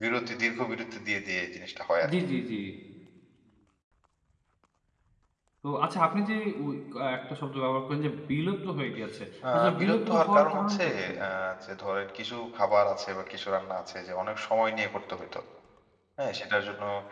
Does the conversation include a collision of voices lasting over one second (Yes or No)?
Yes